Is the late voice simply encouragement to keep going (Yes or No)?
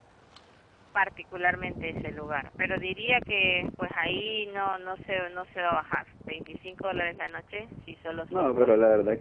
No